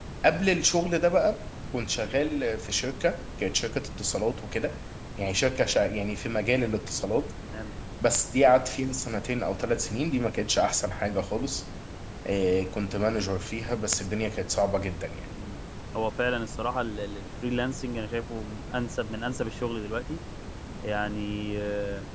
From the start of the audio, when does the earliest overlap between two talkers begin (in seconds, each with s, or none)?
none